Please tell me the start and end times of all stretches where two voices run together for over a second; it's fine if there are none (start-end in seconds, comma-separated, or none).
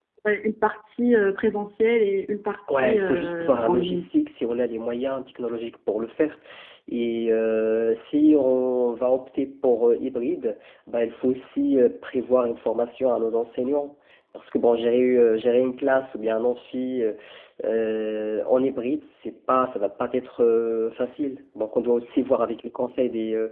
2.7-4.0